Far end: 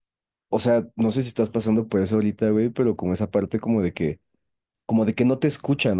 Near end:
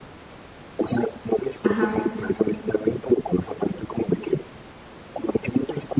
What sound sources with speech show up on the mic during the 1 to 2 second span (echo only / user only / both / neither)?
both